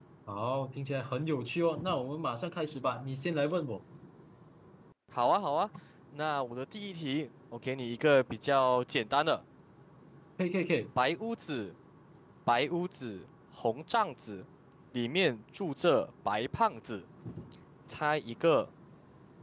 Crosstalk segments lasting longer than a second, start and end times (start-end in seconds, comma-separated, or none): none